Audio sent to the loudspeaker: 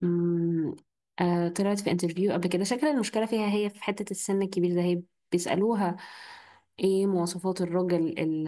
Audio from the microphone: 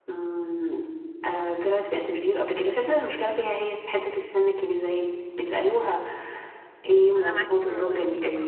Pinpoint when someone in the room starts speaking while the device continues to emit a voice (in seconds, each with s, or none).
7.2 s